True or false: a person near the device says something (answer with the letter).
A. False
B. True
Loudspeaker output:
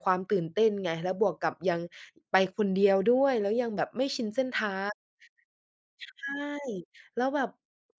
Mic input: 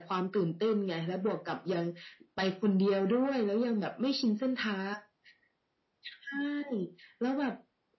A